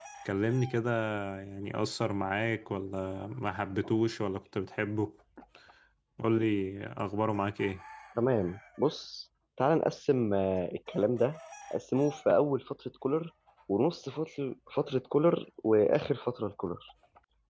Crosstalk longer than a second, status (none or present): none